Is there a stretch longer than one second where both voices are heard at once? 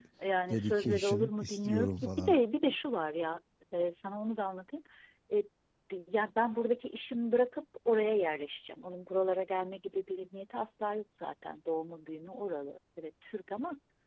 Yes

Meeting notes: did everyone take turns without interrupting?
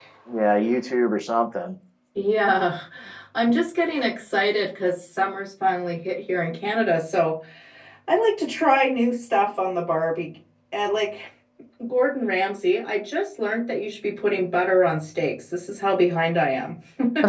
Yes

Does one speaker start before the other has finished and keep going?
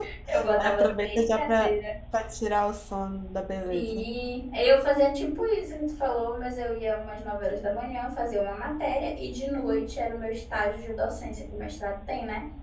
Yes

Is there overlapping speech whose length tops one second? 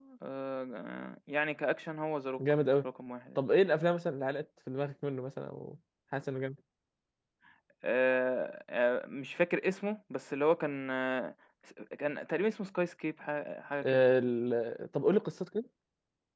No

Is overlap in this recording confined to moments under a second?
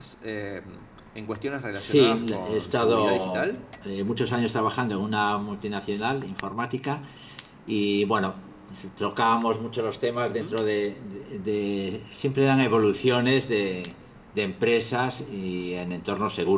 No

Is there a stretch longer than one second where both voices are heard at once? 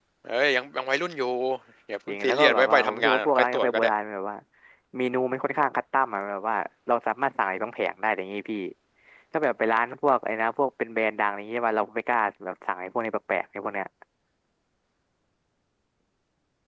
Yes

